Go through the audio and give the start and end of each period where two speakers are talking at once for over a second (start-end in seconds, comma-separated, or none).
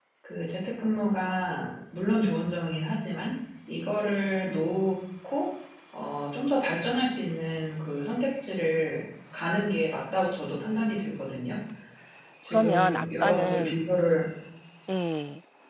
12.5-13.8